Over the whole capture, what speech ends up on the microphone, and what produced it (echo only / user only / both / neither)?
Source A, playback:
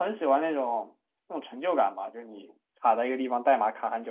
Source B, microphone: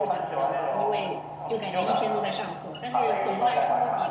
both